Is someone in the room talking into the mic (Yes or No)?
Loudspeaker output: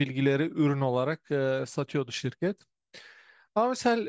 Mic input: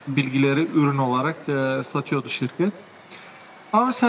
No